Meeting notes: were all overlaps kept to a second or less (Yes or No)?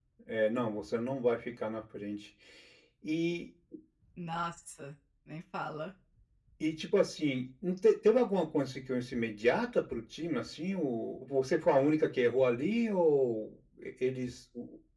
Yes